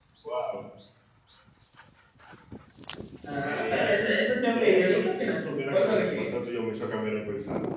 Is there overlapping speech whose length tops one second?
Yes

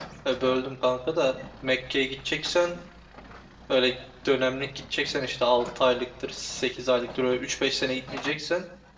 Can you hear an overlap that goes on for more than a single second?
No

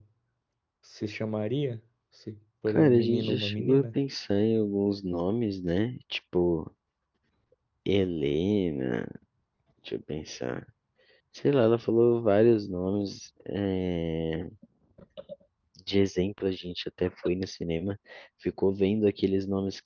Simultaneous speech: Yes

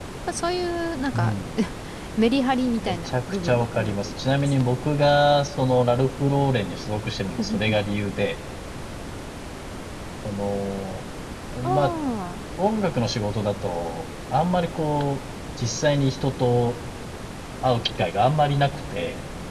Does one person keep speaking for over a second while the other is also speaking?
Yes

